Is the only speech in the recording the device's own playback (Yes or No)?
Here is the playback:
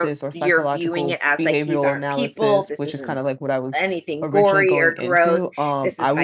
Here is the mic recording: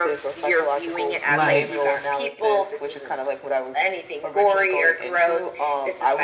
No